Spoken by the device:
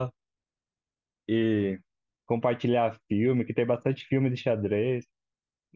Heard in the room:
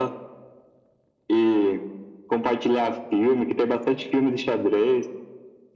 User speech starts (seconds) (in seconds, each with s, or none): none